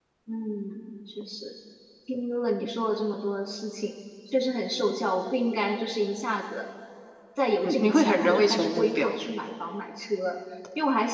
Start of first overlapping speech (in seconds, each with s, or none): 7.6 s